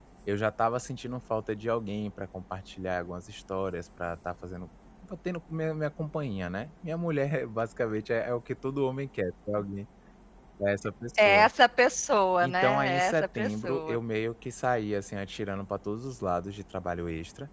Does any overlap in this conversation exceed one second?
Yes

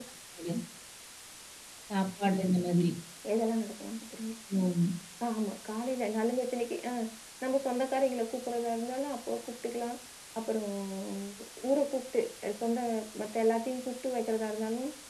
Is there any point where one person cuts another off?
No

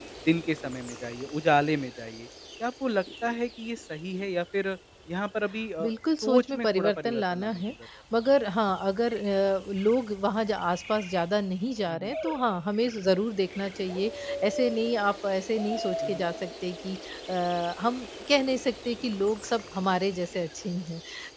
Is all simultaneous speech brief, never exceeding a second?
No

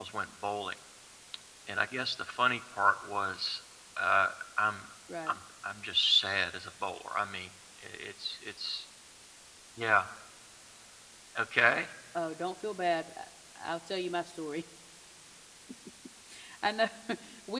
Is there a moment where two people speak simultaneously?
No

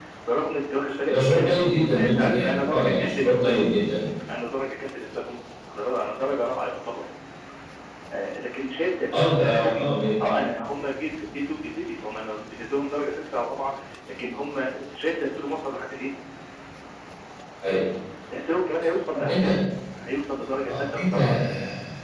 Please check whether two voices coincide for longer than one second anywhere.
Yes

